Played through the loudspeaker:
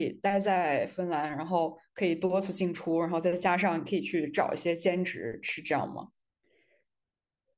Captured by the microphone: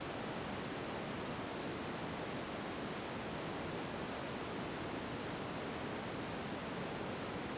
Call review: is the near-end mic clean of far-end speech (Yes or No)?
Yes